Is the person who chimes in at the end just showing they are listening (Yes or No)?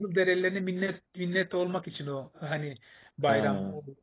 Yes